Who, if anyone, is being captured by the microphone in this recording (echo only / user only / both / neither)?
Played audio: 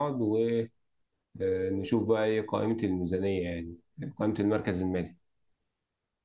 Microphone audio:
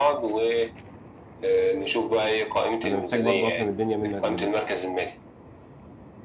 both